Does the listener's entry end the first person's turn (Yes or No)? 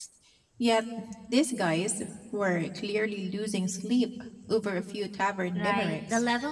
Yes